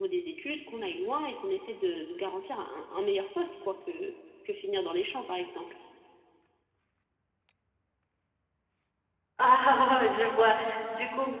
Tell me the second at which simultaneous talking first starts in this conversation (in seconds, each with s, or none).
none